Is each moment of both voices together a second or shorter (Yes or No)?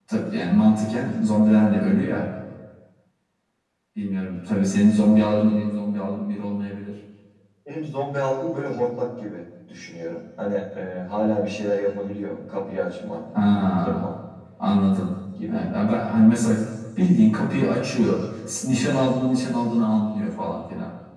Yes